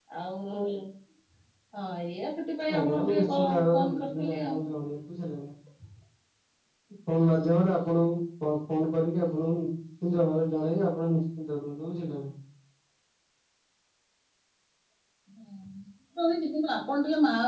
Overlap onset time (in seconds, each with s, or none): 2.6 s